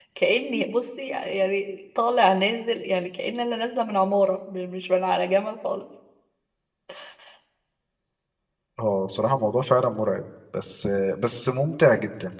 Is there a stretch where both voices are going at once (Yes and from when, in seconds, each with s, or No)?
No